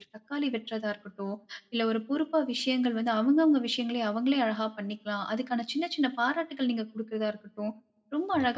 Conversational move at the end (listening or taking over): listening